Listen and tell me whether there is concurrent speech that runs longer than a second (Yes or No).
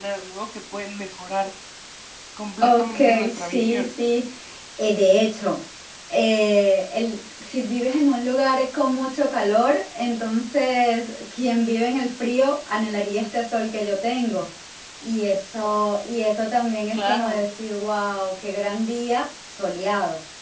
Yes